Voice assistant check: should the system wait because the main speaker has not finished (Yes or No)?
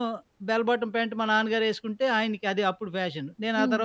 Yes